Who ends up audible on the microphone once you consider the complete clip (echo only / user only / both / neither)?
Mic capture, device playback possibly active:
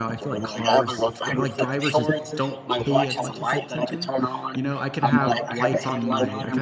both